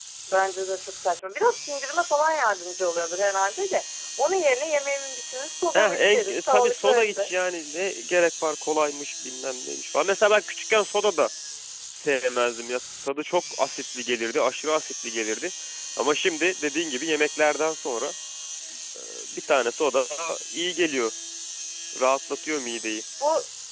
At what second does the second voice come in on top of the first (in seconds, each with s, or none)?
5.7 s